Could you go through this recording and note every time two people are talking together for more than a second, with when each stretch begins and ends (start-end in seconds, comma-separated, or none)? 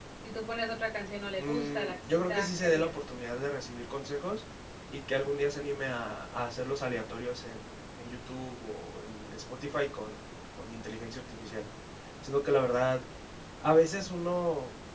1.4-2.9